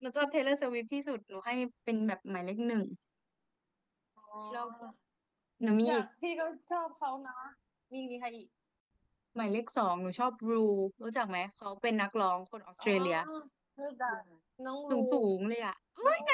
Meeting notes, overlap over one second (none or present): none